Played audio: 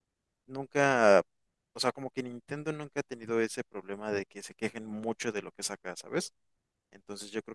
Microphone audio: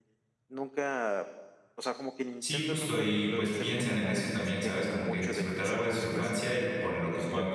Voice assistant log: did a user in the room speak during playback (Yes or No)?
Yes